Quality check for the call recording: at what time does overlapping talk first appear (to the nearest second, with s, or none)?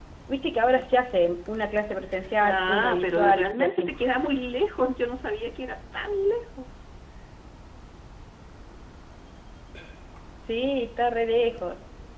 2 s